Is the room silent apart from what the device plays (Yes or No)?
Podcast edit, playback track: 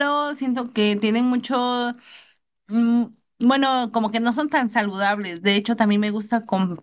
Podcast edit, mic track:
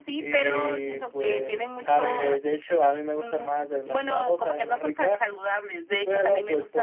No